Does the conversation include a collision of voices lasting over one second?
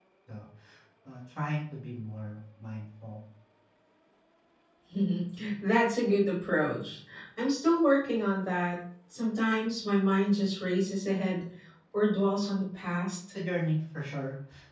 No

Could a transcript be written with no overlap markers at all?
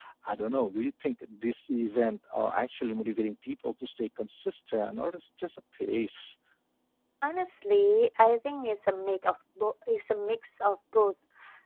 Yes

